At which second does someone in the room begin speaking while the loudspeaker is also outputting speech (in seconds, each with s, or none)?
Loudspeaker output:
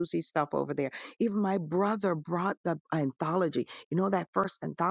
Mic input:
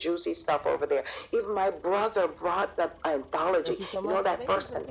3.6 s